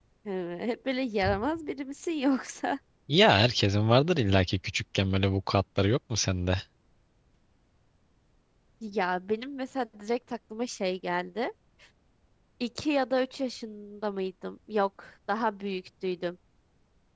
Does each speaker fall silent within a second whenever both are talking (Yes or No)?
Yes